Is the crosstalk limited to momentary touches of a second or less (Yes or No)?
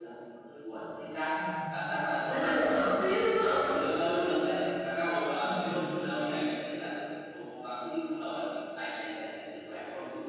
Yes